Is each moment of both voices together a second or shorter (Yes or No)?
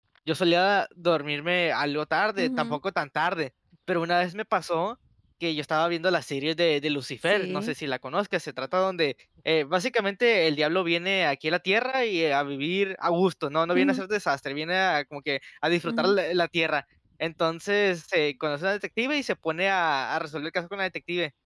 Yes